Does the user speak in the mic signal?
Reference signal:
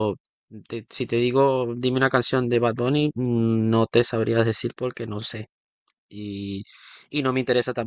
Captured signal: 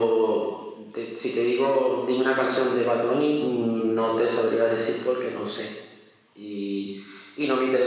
No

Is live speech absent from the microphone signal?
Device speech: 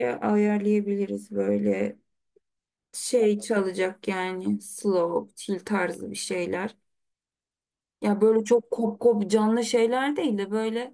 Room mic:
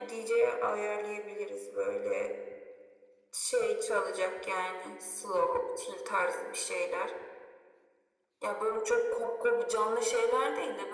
Yes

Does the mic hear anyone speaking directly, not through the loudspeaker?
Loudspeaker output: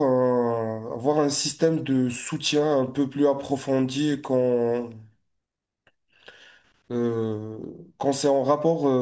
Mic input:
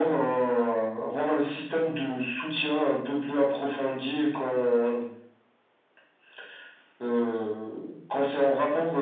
No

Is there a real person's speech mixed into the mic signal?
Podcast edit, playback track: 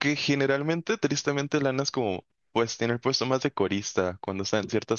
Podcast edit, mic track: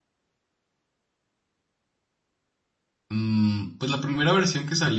Yes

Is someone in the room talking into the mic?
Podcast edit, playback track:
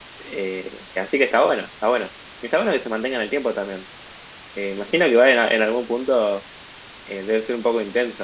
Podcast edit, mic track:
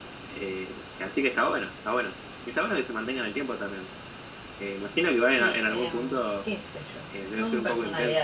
Yes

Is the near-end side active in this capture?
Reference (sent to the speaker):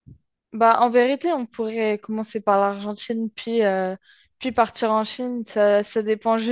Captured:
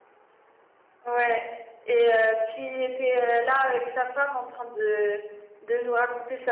Yes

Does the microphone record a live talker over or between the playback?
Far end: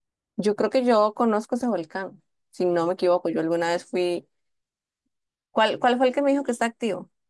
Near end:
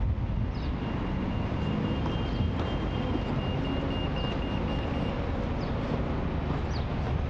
No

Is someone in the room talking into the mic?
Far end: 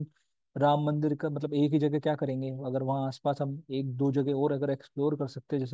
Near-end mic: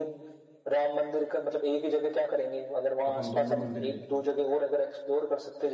Yes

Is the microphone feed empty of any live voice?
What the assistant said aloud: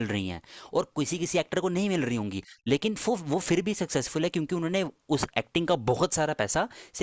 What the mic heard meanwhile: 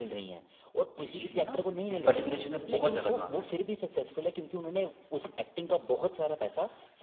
No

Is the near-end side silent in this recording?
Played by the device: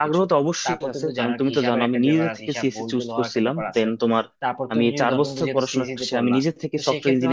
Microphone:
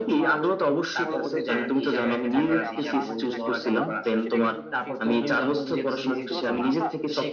No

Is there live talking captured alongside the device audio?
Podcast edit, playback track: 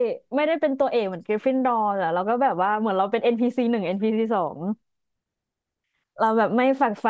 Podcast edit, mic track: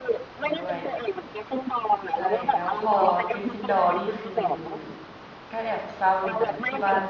Yes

